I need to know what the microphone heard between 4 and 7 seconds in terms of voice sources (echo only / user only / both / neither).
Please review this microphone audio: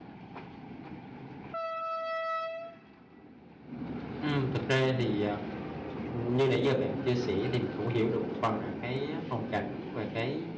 user only